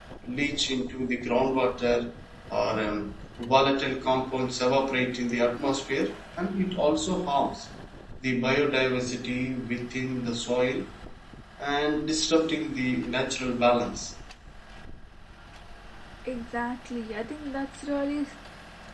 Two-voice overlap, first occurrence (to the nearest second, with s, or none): none